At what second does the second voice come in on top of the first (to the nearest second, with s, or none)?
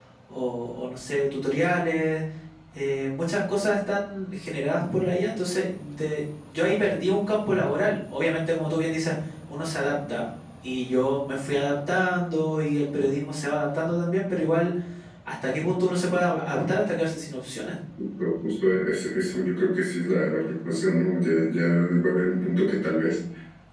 none